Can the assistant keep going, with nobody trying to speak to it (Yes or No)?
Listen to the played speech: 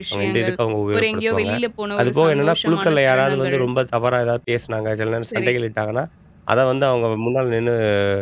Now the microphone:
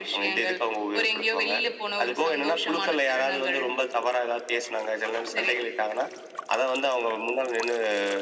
Yes